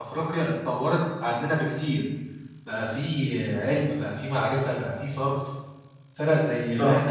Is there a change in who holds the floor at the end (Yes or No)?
No